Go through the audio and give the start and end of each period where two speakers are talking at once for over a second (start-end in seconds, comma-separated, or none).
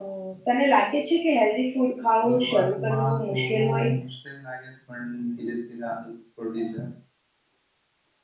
2.2-3.9